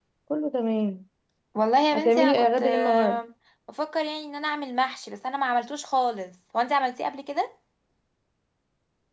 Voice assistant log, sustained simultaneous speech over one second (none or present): present